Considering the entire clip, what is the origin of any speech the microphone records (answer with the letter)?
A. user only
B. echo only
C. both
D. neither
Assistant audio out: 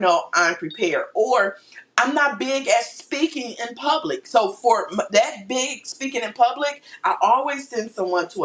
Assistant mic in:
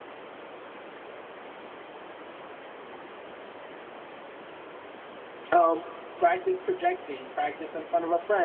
A